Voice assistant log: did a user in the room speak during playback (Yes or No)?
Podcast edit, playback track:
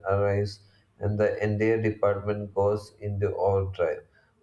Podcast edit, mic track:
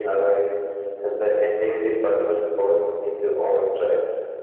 No